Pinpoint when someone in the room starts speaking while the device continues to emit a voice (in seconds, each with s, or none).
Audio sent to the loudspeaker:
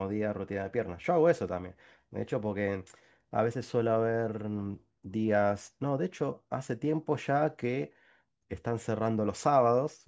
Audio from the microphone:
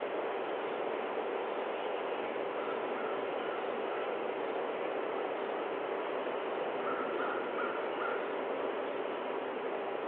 none